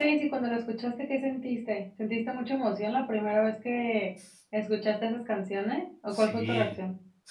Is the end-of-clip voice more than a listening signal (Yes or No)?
Yes